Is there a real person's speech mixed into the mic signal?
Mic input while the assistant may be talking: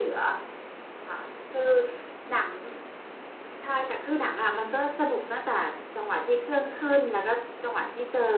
No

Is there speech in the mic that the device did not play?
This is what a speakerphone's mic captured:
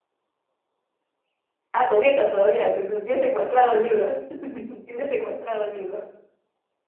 Yes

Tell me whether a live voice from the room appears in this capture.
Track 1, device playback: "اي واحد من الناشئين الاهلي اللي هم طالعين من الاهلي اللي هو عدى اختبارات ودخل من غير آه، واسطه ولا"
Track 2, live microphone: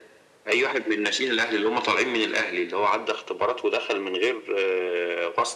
No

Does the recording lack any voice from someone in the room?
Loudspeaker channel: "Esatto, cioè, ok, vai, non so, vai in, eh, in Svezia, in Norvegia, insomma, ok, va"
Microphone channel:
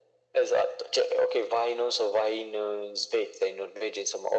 Yes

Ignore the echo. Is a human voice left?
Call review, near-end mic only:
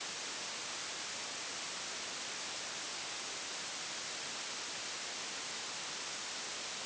No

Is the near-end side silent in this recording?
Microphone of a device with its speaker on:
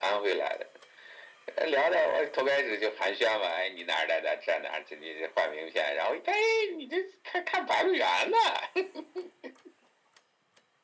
Yes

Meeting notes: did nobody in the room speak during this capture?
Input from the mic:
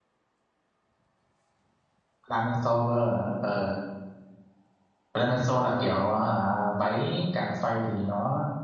No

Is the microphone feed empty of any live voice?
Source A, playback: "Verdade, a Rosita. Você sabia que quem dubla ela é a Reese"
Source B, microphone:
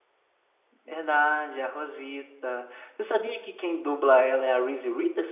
Yes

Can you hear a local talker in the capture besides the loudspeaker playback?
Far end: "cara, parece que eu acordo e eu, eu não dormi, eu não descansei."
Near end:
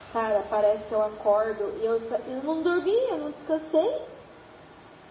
No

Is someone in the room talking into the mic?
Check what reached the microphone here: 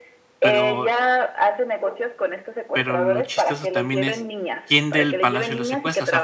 Yes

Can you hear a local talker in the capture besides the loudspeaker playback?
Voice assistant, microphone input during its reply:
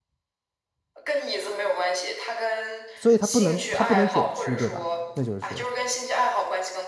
Yes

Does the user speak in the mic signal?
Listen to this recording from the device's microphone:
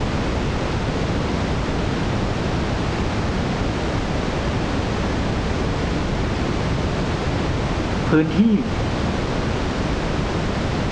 Yes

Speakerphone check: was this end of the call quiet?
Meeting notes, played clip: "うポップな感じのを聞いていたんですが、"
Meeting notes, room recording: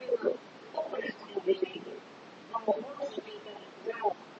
Yes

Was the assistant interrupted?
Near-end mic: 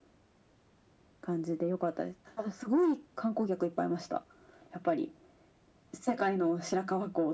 No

